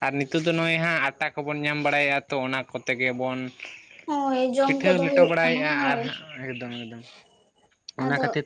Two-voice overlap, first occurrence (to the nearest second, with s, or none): 5 s